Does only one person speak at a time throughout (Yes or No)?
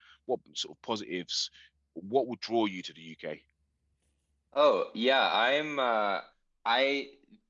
Yes